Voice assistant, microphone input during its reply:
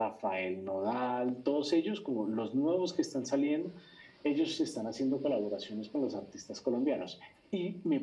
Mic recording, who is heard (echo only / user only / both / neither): echo only